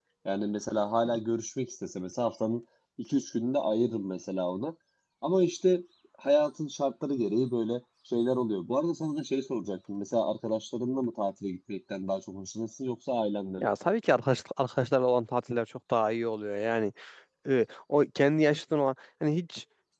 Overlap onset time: none

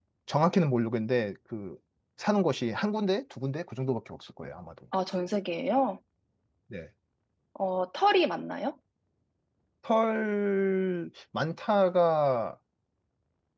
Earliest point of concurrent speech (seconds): none

